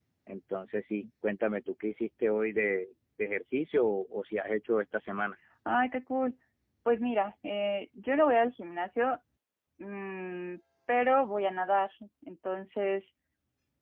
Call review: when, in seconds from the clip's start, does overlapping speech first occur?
none

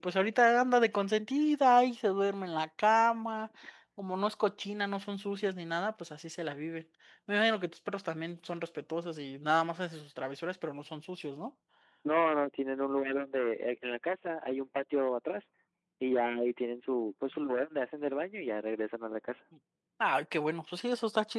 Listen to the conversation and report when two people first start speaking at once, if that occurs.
none

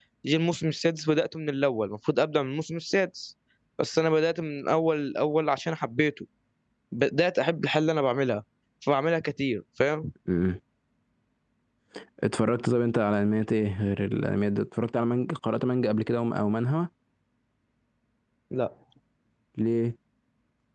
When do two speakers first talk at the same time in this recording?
none

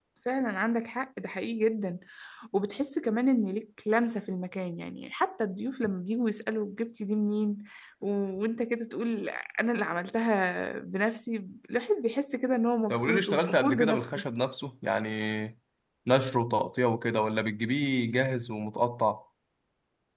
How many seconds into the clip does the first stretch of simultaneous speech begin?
12.9 s

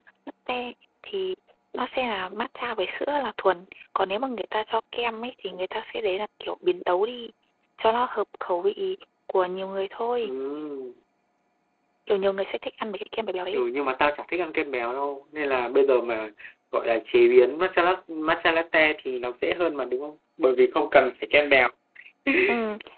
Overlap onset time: none

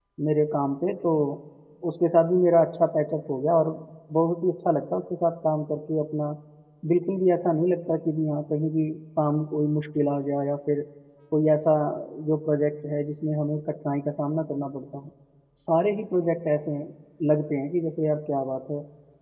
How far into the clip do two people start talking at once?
none

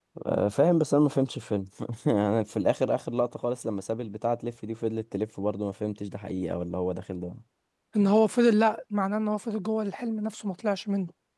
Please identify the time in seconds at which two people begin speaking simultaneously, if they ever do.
none

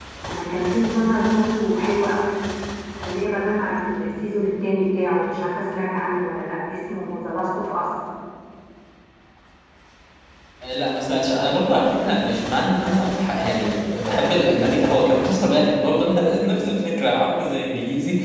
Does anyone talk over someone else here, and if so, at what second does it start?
none

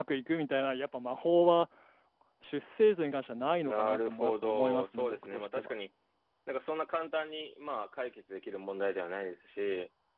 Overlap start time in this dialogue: 3.6 s

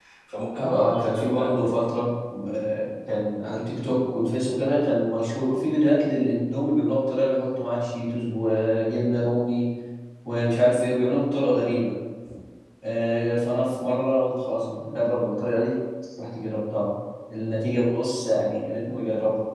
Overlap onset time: 0.6 s

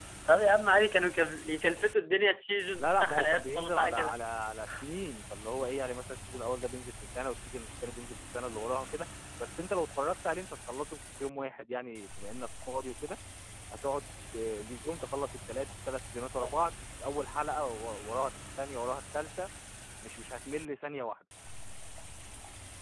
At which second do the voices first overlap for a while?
2.8 s

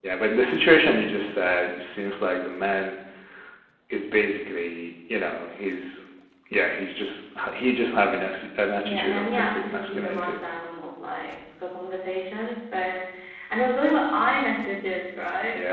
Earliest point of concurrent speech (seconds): 8.8 s

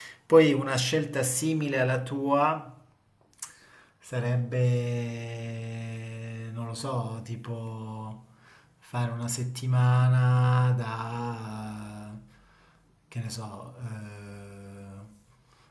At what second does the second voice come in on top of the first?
none

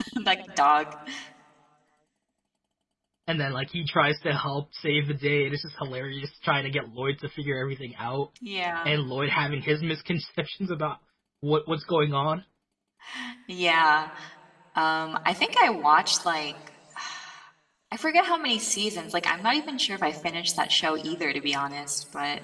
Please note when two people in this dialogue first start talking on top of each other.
none

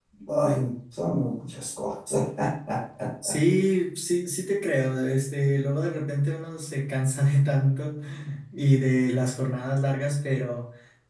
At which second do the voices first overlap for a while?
none

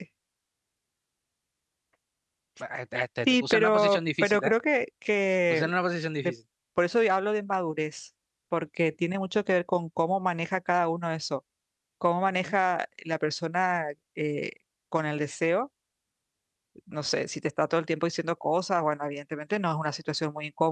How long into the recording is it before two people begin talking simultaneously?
3.3 s

